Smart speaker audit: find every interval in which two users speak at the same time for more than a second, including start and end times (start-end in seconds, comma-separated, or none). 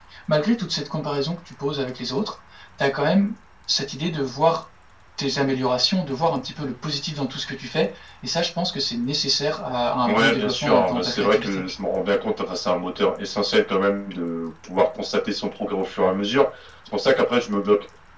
10.0-11.6